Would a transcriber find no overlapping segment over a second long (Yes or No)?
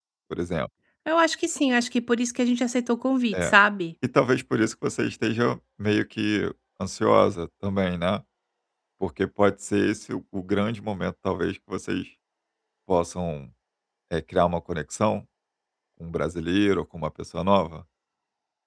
Yes